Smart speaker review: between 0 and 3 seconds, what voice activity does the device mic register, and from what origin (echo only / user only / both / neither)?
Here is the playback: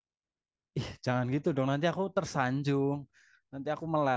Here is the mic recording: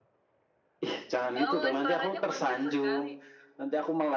both